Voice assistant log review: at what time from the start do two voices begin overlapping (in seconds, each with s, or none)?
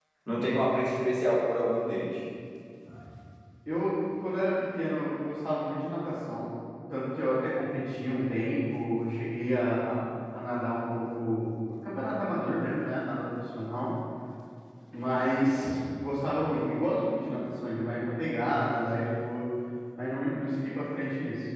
none